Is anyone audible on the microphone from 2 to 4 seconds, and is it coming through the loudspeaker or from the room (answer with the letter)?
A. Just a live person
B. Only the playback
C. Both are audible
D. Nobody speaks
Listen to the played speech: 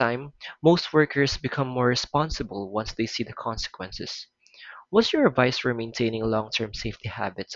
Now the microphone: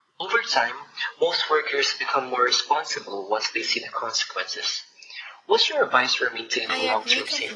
B